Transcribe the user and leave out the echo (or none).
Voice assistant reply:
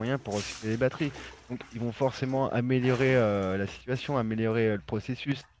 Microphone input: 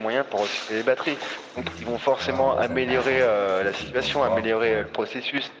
Hmm. Ouais, en vrai, c'est intéressant. C'est quelque chose que je dois voir. Ouais.